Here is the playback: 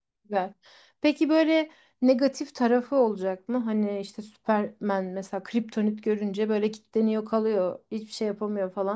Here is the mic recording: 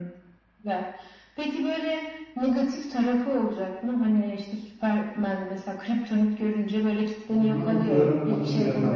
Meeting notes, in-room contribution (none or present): present